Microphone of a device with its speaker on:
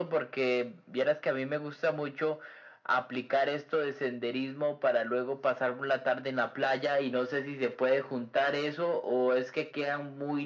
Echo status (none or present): present